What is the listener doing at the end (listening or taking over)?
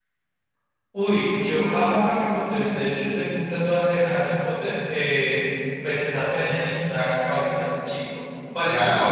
taking over